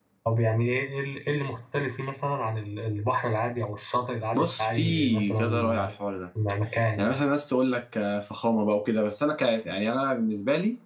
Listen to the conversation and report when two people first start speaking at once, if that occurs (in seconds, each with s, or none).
4.3 s